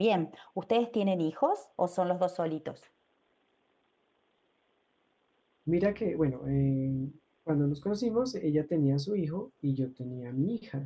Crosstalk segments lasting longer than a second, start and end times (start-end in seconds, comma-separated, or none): none